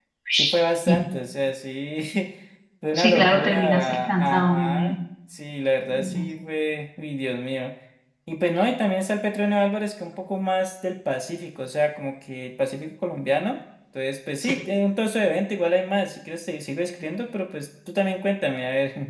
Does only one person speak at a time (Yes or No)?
No